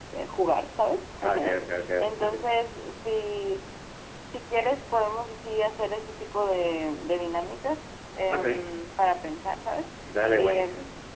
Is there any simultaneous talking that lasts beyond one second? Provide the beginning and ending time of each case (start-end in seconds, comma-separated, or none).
none